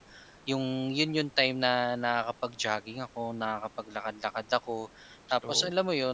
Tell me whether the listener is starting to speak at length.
No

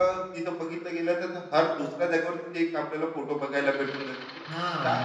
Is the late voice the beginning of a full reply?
Yes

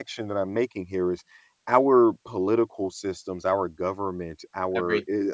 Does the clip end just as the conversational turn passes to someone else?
No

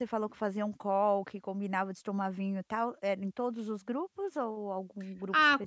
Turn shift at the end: Yes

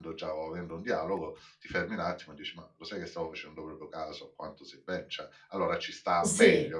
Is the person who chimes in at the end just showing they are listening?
No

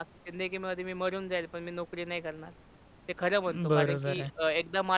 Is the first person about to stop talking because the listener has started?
No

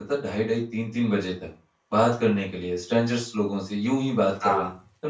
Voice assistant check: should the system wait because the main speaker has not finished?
Yes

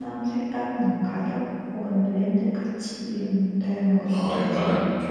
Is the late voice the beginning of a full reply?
Yes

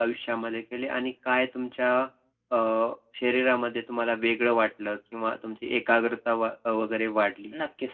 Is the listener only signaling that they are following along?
No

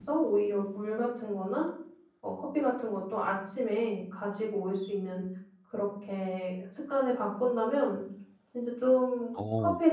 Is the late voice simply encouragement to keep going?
Yes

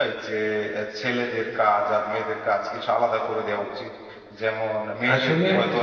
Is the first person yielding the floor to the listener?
No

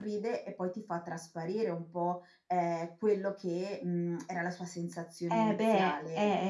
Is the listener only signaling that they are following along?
No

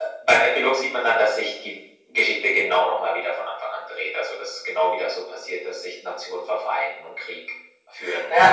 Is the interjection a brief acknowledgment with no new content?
No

